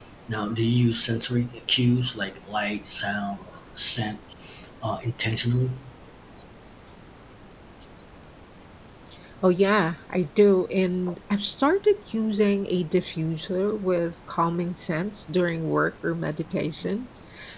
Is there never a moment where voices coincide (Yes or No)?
Yes